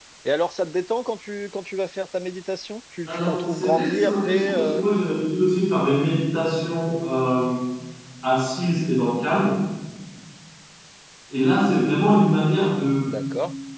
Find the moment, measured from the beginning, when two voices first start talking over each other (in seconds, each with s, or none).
3.1 s